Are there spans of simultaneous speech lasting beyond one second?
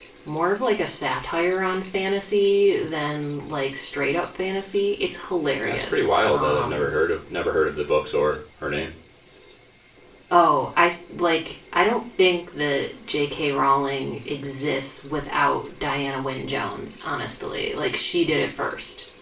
Yes, from 5.6 s

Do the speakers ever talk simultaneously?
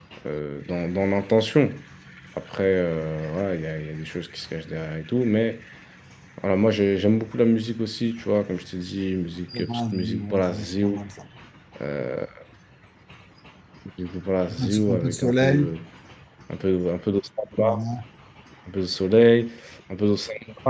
Yes, from 9.6 s

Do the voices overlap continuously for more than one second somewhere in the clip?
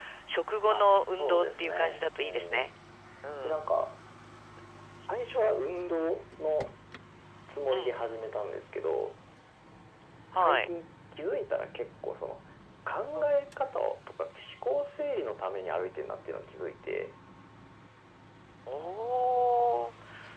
Yes, from 0.7 s

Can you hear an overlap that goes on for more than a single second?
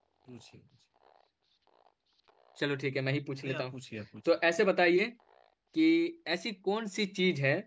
No

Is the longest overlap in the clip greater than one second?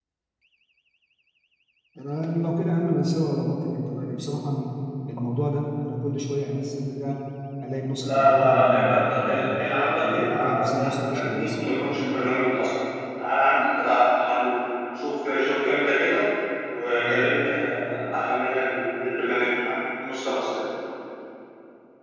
Yes, from 8.0 s

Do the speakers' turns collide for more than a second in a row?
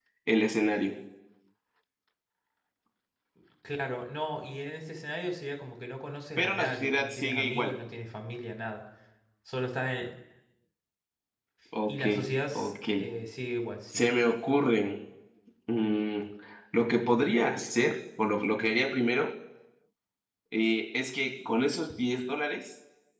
Yes, from 6.4 s

